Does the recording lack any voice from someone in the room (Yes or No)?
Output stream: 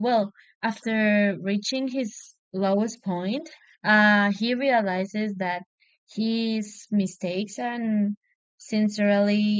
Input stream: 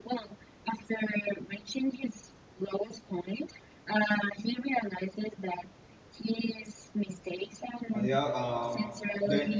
No